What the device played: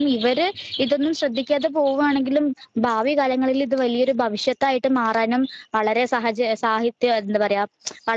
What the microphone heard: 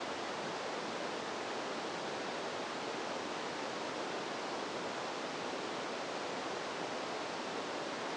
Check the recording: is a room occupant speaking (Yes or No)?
No